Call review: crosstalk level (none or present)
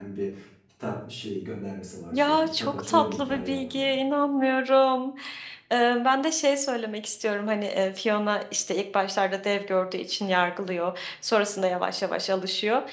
present